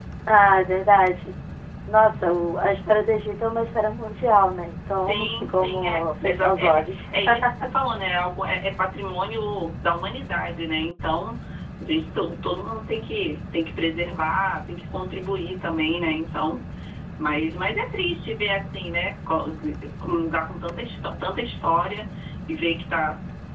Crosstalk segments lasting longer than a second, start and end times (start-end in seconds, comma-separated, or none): 5.0-6.9